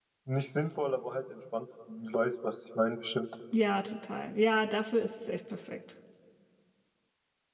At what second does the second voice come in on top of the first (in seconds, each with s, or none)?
none